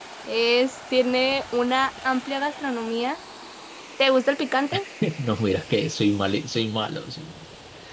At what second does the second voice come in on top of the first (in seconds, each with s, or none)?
none